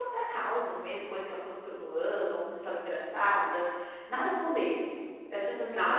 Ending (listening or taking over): taking over